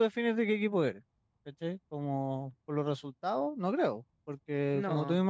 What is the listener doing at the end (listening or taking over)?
listening